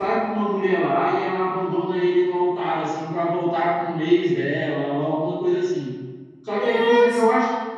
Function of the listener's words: listening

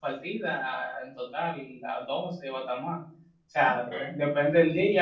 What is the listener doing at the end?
listening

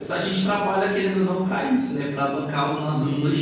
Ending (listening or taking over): taking over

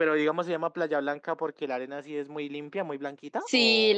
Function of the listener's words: taking over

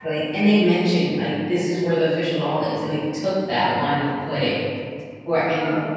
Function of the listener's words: listening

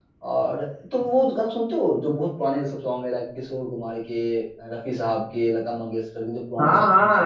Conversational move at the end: taking over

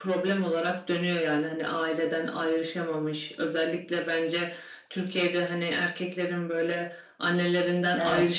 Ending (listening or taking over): listening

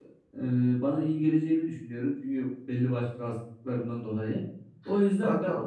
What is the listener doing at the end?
listening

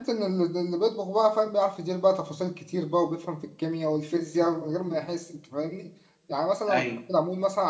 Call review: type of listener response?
listening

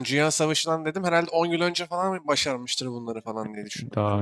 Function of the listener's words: taking over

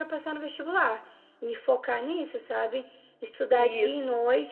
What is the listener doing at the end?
listening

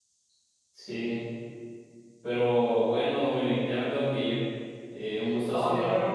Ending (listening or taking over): taking over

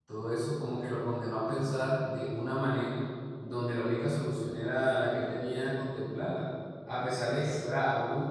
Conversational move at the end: listening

